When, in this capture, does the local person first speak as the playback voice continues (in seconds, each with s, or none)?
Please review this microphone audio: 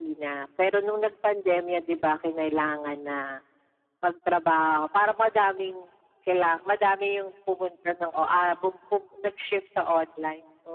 none